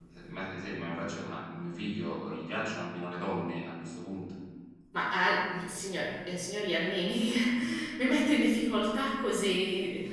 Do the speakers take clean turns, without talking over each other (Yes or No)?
Yes